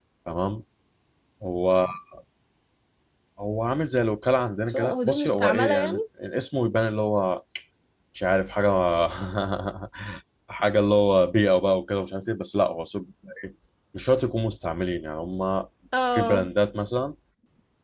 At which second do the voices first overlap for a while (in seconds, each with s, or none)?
4.7 s